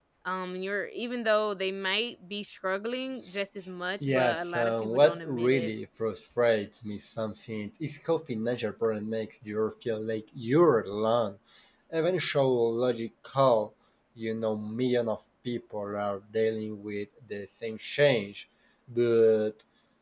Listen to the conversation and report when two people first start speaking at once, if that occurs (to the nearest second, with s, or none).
4 s